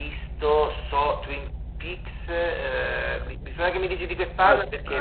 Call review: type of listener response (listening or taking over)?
taking over